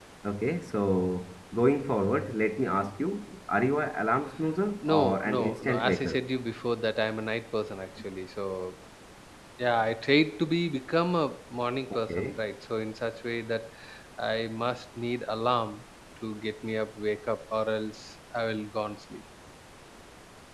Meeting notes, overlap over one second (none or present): present